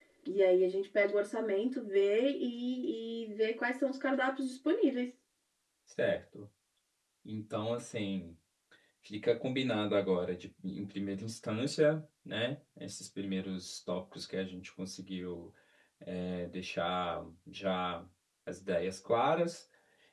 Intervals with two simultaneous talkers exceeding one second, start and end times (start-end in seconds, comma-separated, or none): none